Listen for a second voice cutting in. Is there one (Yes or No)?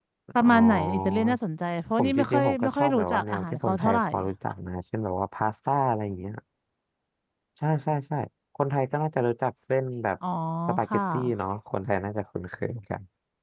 Yes